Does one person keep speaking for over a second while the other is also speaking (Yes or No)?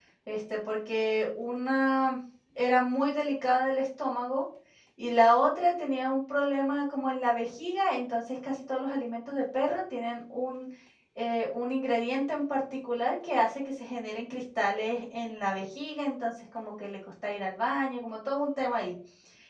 No